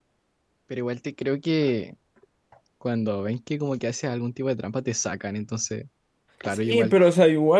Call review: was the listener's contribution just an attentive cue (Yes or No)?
No